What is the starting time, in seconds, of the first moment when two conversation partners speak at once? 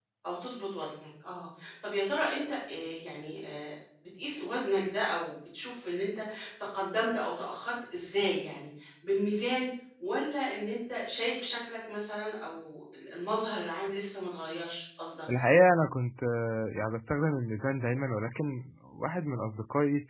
none

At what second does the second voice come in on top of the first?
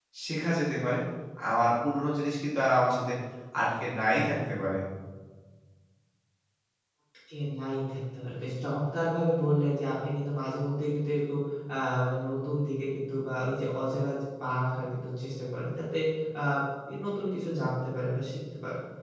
none

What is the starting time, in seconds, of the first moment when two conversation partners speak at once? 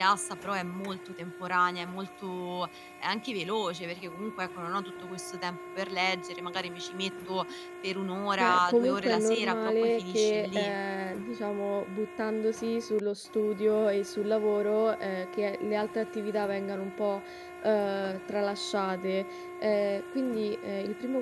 8 s

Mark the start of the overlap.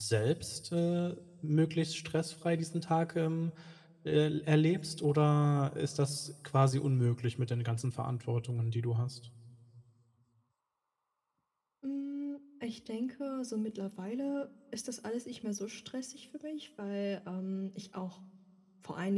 none

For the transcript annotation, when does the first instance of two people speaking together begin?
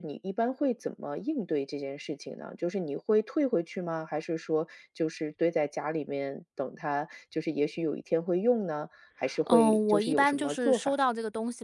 9 s

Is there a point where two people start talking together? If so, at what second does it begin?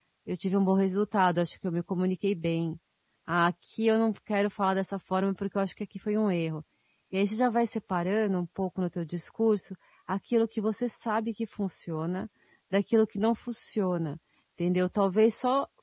none

